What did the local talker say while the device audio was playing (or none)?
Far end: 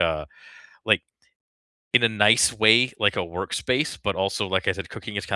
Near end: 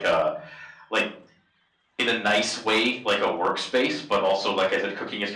none